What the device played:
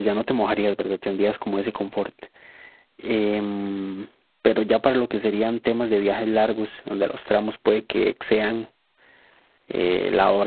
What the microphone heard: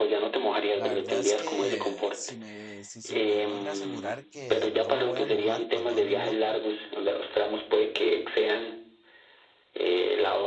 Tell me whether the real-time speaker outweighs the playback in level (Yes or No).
No